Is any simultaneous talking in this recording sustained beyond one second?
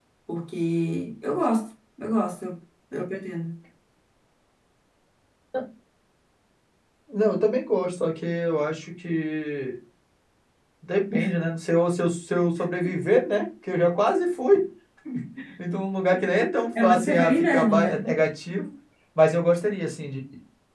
Yes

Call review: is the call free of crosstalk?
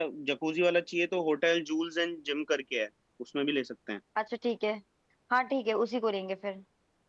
Yes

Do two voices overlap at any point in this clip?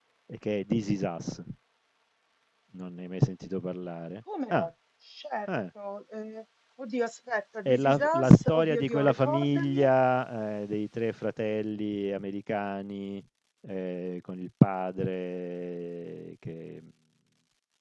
Yes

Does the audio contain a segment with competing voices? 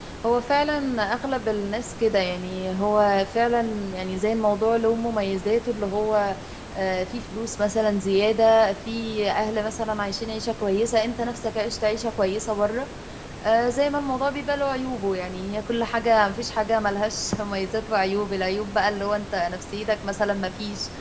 No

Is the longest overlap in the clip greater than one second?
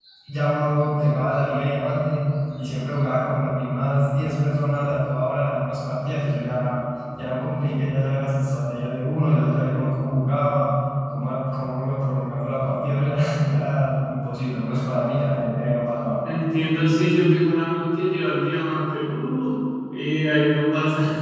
No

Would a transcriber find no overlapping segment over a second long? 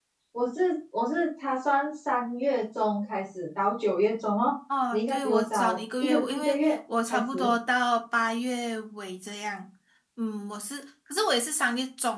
No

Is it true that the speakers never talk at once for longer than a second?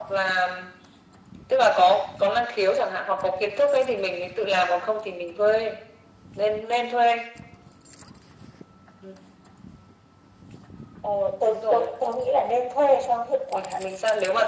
Yes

